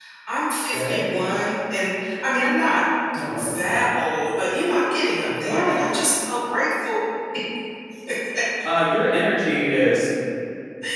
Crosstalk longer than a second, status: none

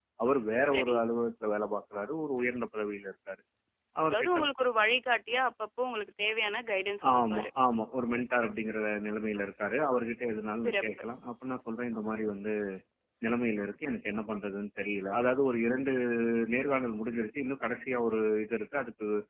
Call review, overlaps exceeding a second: none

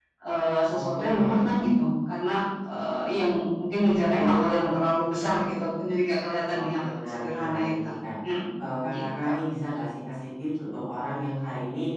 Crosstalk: present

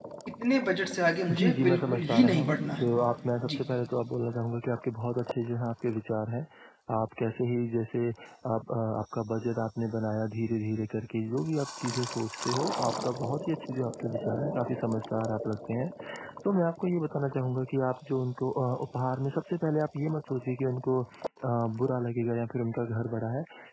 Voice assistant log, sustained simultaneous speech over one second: present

